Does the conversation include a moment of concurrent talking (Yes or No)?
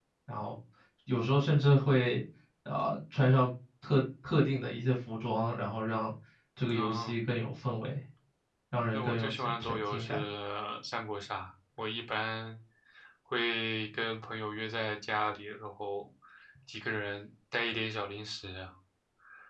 Yes